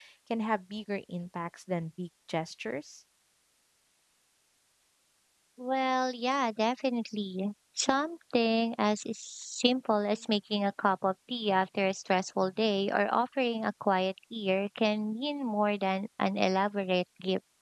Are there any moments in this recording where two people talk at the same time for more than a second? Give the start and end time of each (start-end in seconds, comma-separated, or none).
none